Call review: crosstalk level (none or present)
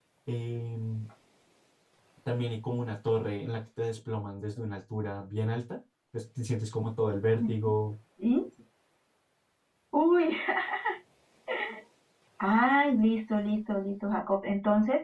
none